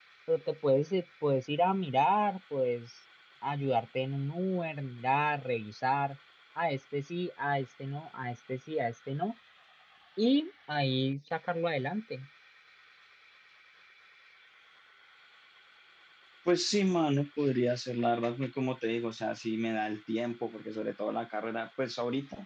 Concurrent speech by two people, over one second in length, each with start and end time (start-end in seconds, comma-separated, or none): none